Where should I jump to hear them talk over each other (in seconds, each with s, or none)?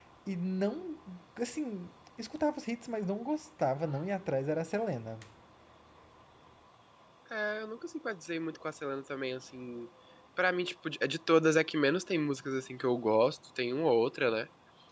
none